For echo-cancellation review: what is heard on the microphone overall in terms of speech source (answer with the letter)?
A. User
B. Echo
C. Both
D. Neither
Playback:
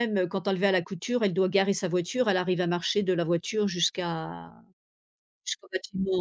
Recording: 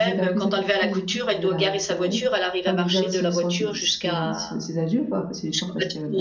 C